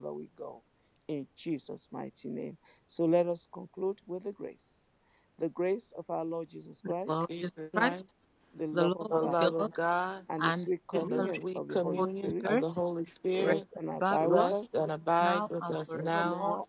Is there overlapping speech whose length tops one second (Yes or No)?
Yes